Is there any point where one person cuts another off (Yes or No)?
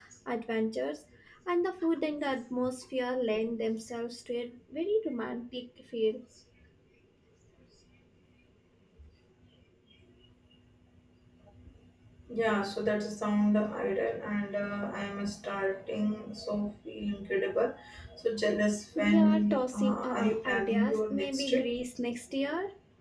Yes